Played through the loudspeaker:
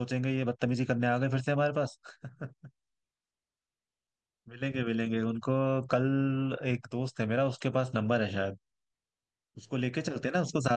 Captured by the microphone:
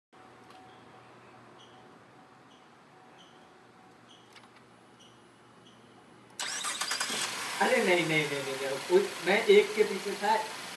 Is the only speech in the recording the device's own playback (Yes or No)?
No